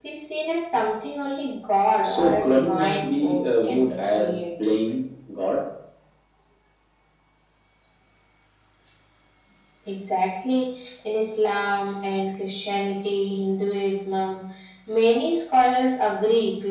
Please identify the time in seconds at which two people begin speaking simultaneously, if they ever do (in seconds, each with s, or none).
2.0 s